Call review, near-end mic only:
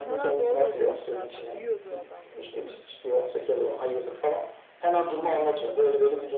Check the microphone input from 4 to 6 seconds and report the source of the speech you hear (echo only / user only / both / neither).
both